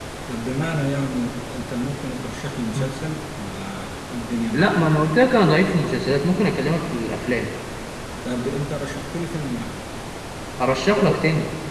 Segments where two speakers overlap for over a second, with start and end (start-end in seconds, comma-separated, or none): none